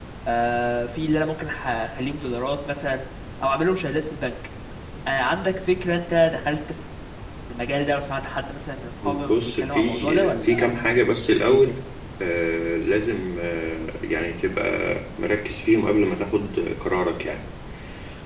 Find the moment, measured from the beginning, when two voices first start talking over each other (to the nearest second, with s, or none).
9 s